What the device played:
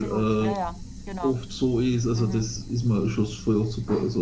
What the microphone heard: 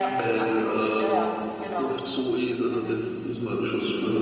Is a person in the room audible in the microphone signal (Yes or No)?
No